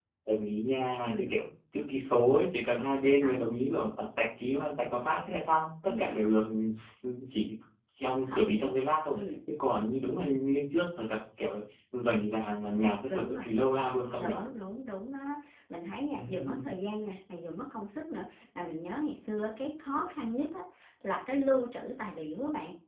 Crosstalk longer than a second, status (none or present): none